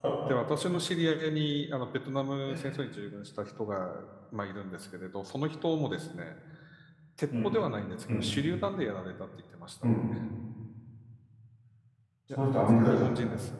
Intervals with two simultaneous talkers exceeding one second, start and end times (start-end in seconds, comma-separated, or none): none